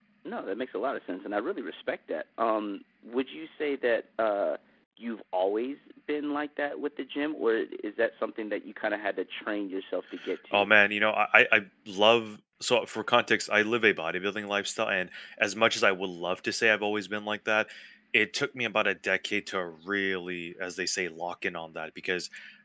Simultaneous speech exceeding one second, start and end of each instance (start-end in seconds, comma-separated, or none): none